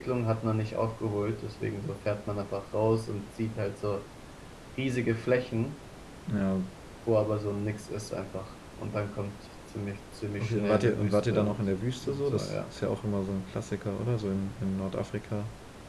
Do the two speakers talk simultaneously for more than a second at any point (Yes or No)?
Yes